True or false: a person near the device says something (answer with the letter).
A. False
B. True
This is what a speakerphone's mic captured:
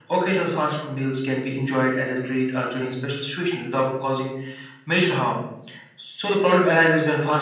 A